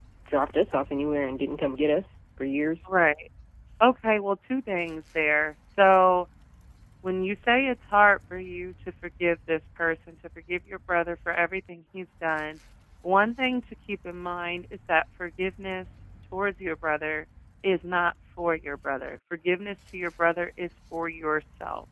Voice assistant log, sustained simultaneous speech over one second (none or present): none